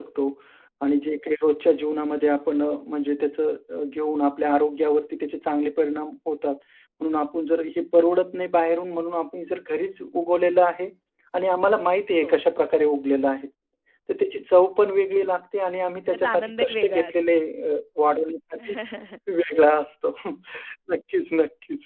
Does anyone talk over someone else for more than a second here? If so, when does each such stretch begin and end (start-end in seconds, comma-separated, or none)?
16.1-17.4